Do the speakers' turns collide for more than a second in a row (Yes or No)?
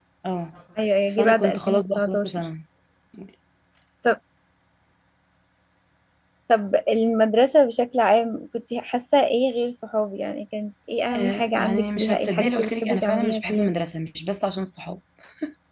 Yes